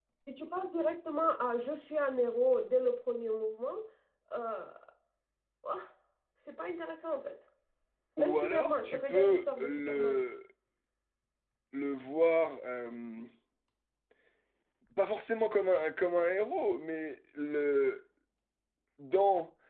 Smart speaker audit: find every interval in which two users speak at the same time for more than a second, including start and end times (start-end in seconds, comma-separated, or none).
8.2-10.2